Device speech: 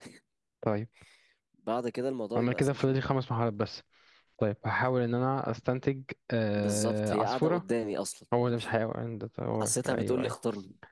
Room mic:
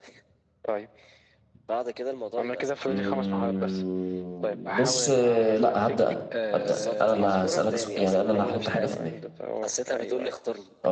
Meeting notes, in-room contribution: present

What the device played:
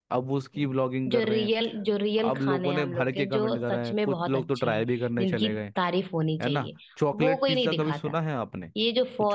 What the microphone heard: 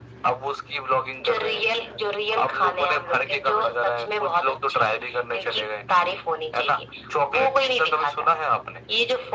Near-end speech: none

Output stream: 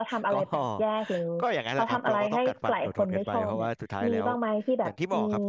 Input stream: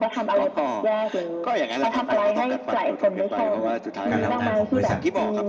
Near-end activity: present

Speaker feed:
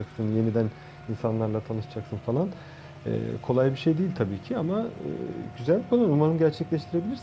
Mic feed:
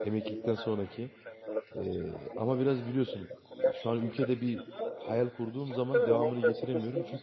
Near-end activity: present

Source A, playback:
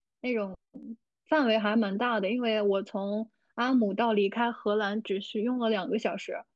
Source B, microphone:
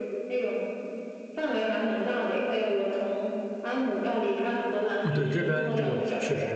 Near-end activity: present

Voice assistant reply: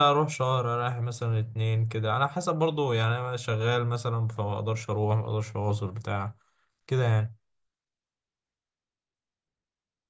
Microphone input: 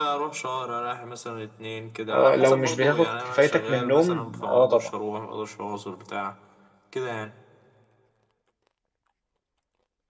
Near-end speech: present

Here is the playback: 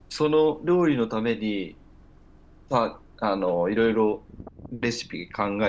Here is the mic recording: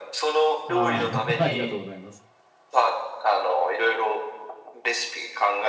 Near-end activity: present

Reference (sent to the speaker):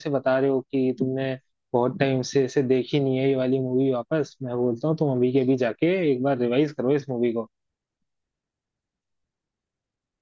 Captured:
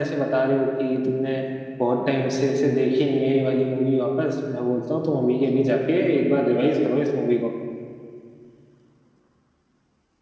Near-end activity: none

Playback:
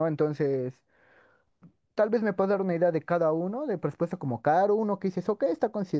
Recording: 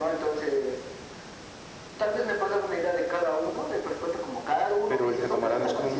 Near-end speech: present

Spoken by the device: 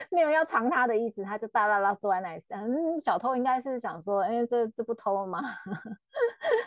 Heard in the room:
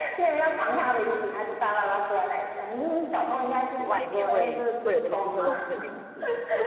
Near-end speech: present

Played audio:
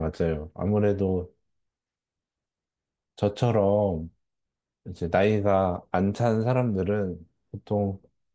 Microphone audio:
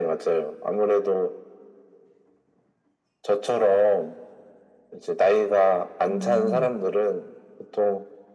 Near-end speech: present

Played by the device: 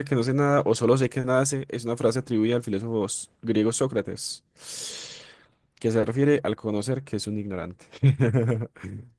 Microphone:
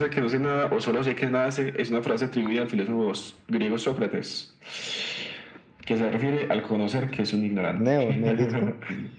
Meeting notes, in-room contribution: present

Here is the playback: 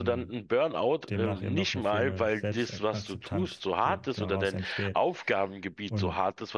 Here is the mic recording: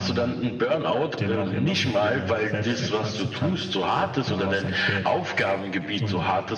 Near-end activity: none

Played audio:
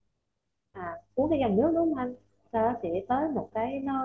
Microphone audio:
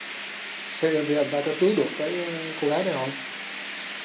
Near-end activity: present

